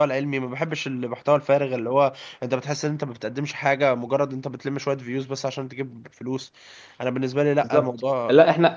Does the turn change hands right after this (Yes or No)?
Yes